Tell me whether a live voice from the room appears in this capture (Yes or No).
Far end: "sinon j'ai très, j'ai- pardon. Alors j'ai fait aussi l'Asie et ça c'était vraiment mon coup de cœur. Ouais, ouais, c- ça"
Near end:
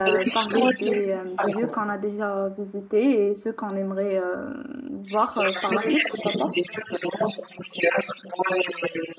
Yes